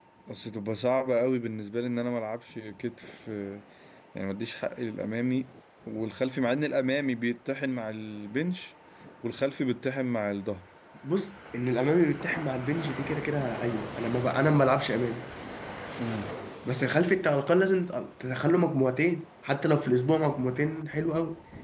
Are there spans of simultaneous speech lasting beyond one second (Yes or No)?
No